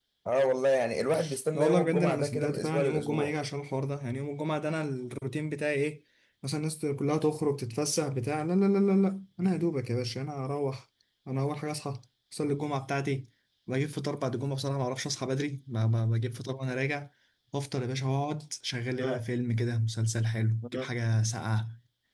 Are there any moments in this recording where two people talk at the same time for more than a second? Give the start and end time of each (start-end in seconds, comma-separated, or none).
1.6-3.3